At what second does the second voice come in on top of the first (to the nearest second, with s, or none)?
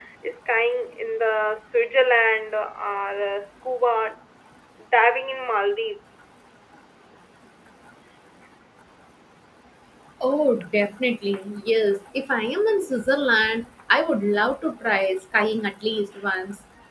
none